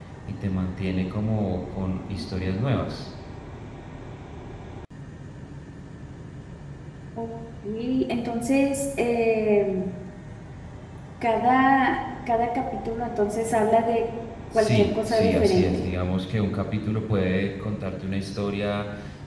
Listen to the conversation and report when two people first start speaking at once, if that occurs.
15 s

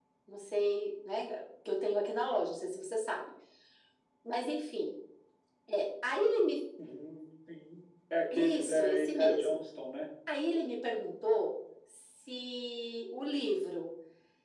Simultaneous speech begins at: 8 s

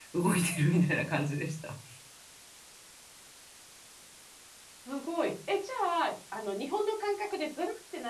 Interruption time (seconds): none

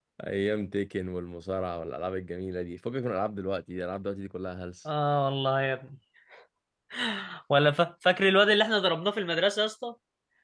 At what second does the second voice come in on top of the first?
none

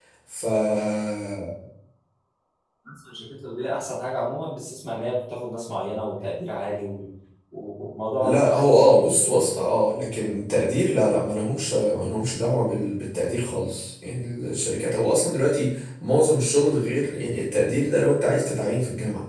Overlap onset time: 8 s

